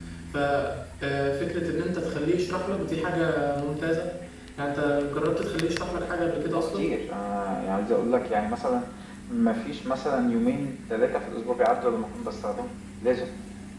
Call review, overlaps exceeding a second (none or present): none